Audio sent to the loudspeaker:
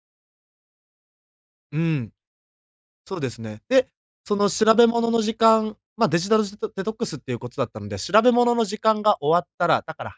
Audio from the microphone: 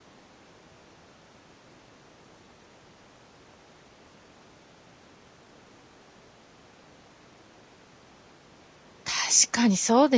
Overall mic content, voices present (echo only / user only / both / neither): user only